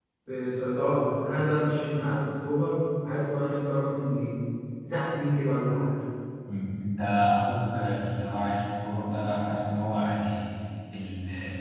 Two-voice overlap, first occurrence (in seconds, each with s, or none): none